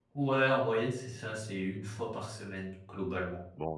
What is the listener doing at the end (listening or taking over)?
taking over